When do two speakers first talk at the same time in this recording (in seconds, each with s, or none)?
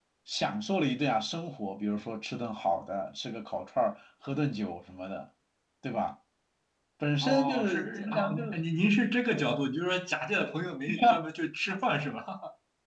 7.2 s